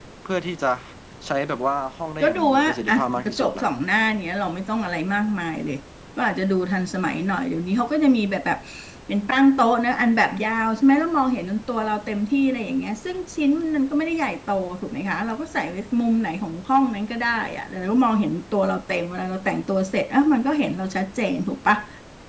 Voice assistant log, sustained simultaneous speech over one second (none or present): present